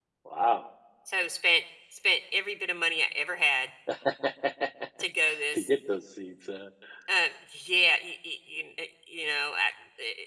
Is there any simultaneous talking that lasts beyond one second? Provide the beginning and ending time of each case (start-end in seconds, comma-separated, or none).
none